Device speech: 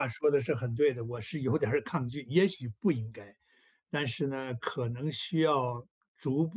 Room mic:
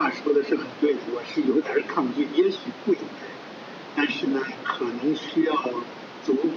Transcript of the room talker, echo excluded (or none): none